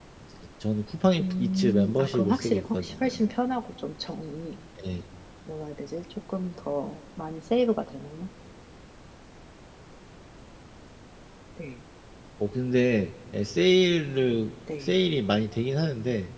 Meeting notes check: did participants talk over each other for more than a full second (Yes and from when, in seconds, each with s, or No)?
Yes, from 1.2 s